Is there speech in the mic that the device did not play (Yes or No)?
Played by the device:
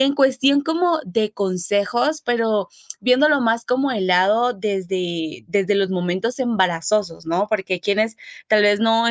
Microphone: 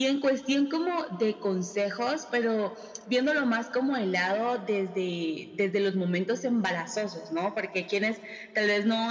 No